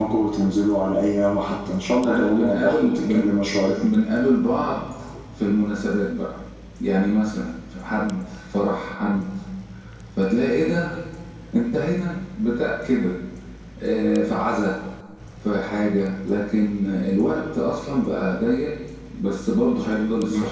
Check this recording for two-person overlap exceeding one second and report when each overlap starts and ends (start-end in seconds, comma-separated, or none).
2.0-3.3